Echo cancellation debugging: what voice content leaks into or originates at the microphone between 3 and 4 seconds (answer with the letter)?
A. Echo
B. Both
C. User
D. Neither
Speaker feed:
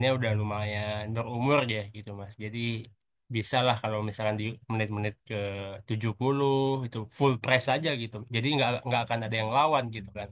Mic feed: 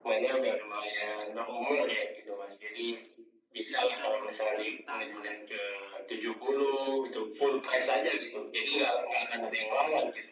B